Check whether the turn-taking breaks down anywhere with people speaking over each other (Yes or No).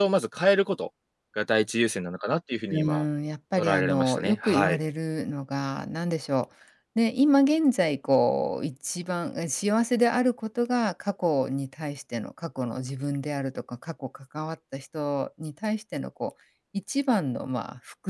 Yes